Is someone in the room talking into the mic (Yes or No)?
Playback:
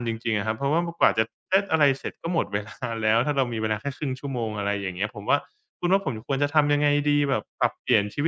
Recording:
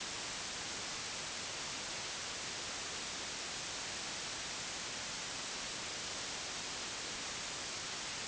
No